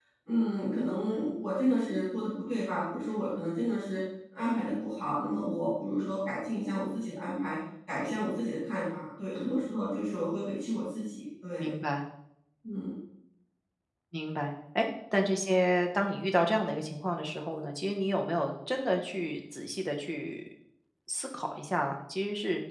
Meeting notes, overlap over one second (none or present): none